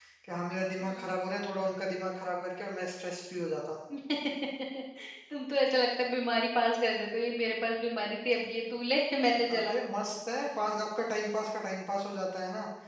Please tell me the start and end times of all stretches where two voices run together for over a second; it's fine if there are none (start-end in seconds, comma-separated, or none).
none